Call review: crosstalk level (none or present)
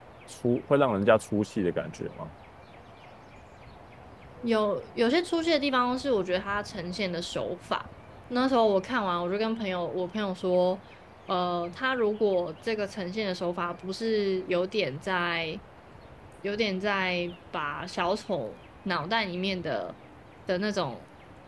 none